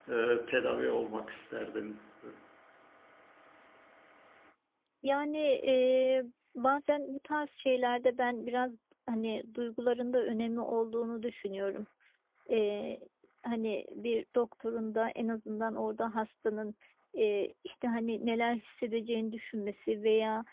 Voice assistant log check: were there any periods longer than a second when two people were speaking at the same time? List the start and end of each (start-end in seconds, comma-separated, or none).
none